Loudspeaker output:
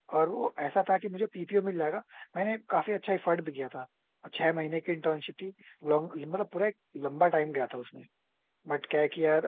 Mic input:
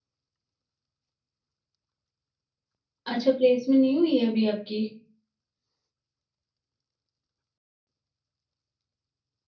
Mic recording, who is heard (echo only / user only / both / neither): user only